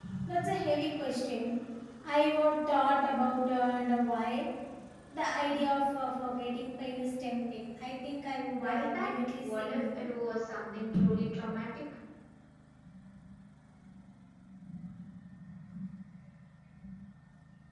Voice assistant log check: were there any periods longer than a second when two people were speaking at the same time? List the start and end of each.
8.6-10.1

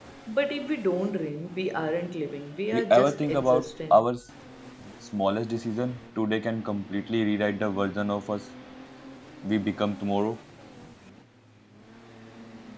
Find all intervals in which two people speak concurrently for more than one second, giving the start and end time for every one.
2.7-4.0

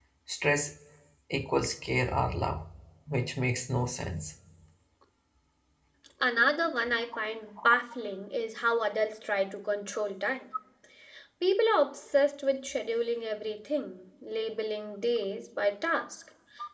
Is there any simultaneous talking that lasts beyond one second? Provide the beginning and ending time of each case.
none

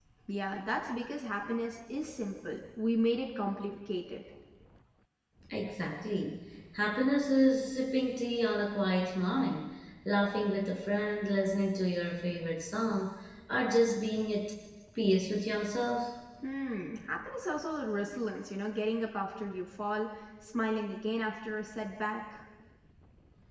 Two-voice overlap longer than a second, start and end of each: none

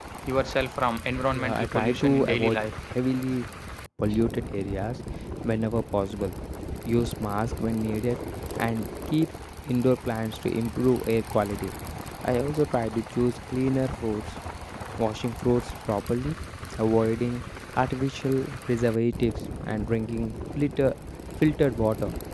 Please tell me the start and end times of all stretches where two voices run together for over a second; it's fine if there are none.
1.3-2.7

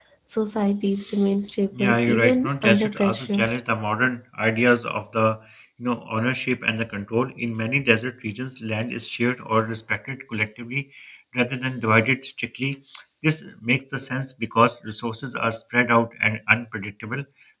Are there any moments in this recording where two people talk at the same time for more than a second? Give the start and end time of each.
1.8-3.5

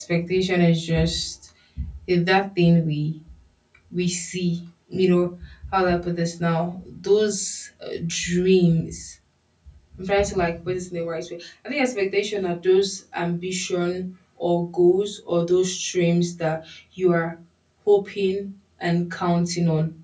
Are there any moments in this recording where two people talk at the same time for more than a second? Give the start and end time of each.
none

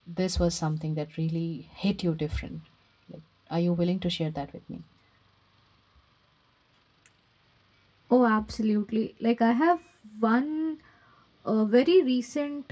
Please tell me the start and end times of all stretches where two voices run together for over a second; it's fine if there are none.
none

